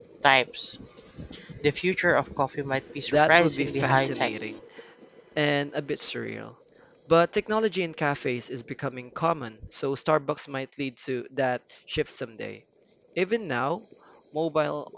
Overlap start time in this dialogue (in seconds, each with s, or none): 3.1 s